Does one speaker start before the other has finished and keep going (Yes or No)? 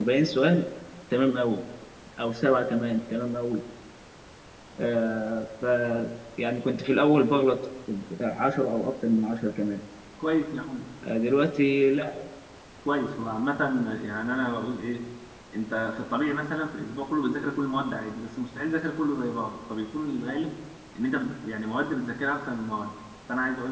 No